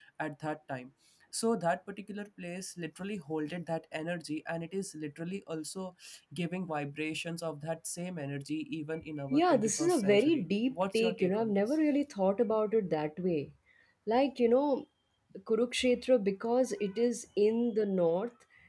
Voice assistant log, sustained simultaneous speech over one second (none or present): present